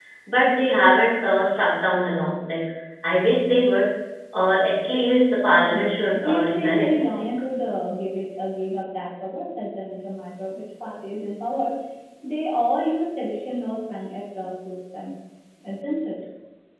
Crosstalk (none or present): present